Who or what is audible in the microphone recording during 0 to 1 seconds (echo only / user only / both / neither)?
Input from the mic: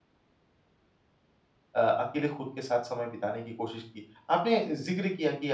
neither